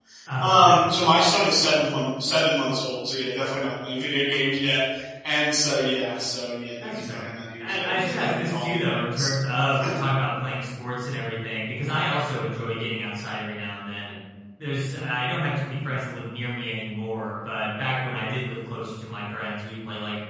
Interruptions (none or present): present